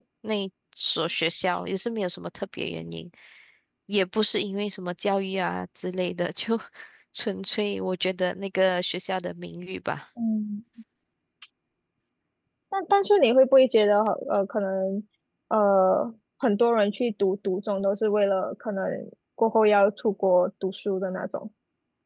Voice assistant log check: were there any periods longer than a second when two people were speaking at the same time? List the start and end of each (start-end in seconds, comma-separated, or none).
none